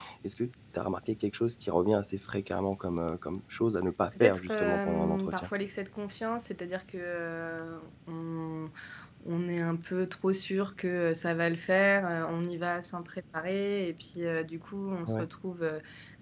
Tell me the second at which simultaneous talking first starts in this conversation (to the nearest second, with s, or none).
4 s